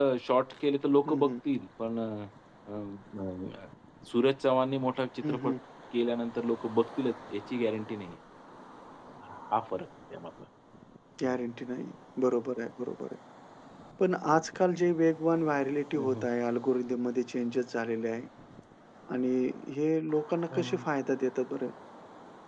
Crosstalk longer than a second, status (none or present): none